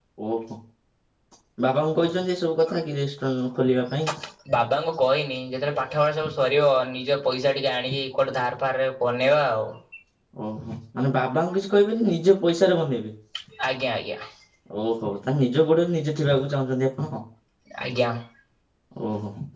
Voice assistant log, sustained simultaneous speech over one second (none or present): none